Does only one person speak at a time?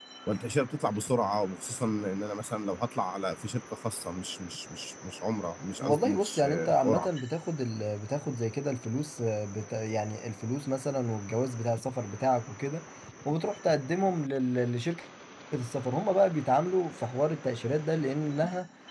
No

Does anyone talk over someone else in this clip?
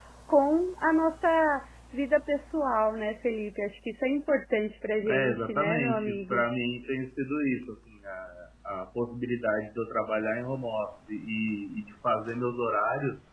Yes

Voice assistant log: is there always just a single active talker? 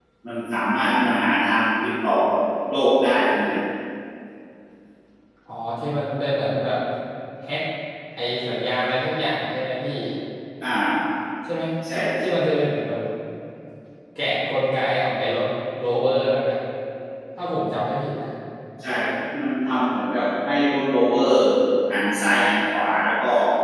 Yes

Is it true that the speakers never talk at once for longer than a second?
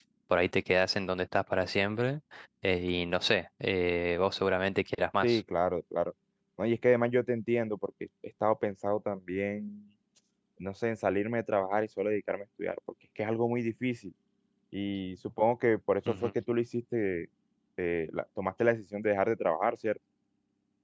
Yes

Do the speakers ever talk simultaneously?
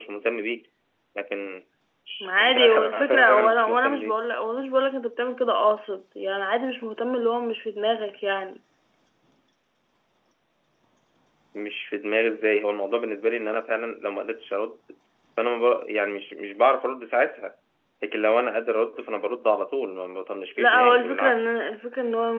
Yes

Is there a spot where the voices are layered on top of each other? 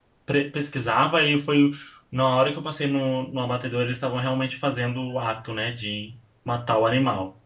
No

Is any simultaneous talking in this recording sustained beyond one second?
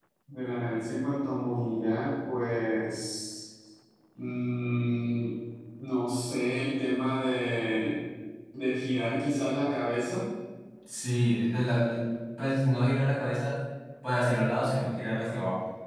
No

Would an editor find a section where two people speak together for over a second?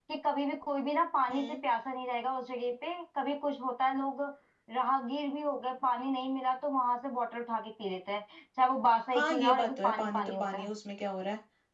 Yes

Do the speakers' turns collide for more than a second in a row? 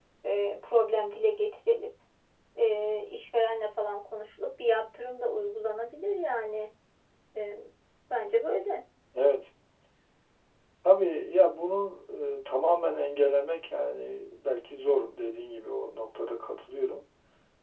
No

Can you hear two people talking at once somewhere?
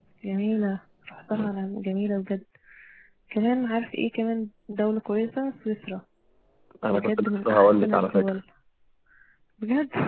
Yes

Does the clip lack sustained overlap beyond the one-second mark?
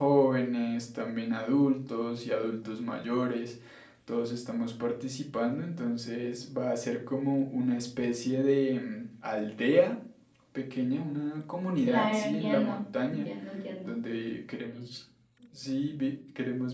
No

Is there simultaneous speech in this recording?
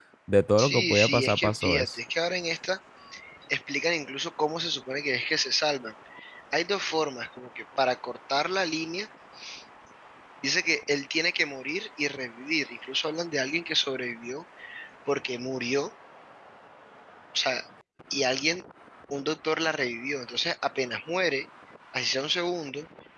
Yes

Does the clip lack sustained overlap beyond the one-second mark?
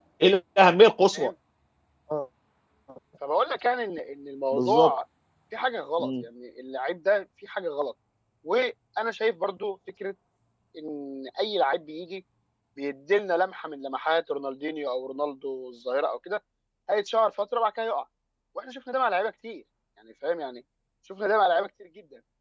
Yes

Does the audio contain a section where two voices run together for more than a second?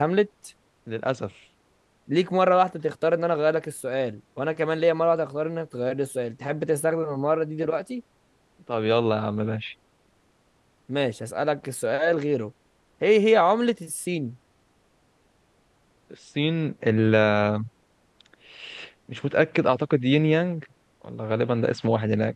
No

